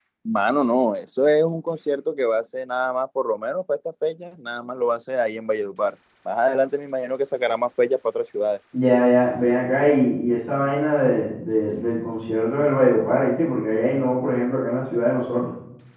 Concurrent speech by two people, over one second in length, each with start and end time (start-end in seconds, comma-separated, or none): none